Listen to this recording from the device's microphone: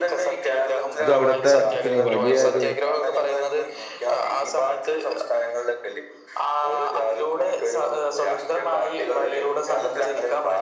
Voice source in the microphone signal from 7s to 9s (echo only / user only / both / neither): echo only